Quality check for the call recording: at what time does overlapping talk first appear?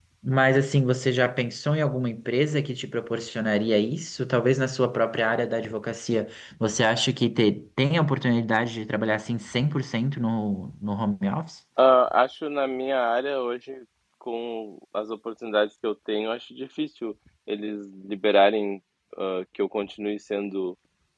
none

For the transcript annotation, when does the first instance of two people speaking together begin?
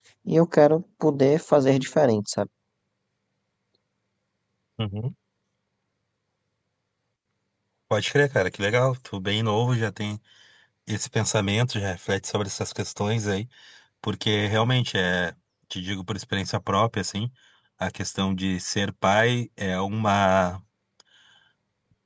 none

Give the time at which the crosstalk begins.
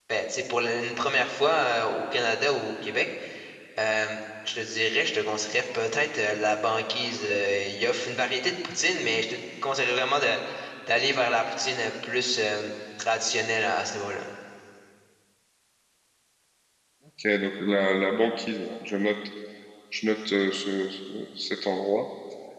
none

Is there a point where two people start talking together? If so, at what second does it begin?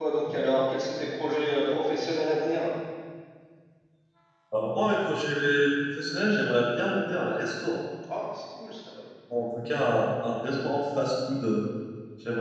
none

